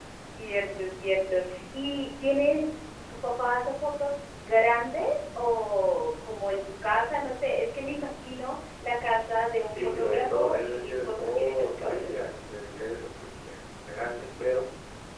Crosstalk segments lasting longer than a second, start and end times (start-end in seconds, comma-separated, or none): 9.8-12.0